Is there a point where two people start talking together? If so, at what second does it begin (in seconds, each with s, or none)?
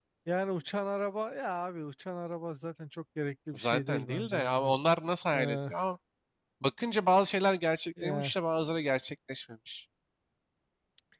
3.5 s